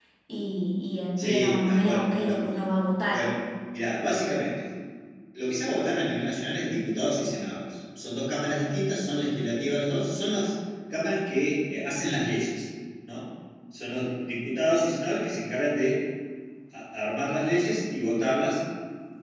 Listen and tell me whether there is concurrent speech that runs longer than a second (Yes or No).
Yes